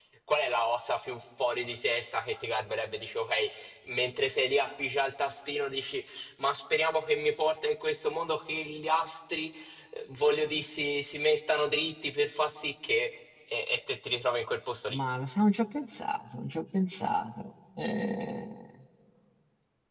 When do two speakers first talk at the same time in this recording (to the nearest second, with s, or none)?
none